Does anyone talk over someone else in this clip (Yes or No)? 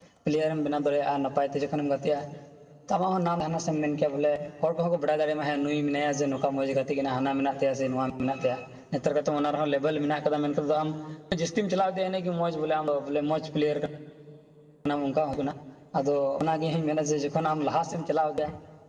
No